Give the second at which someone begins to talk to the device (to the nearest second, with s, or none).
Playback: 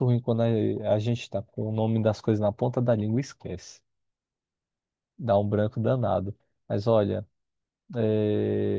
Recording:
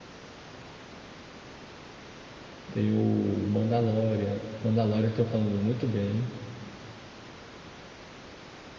3 s